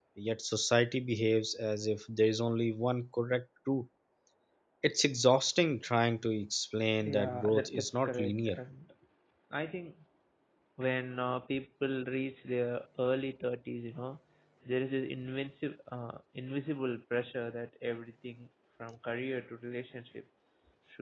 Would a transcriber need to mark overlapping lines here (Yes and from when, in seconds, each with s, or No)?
Yes, from 7.0 s